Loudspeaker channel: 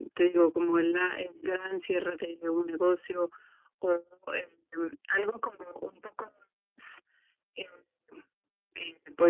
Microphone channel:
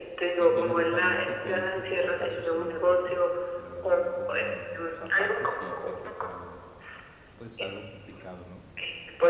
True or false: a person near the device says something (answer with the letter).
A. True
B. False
A